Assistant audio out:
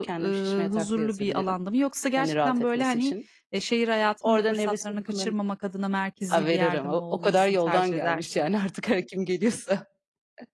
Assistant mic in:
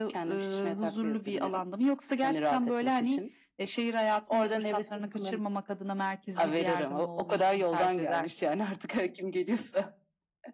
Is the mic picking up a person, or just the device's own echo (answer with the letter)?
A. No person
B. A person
A